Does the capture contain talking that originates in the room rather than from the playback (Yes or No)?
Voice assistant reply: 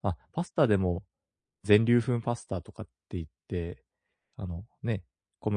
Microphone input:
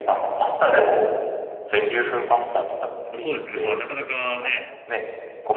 Yes